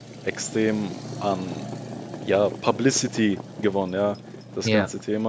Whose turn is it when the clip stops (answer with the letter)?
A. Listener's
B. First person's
B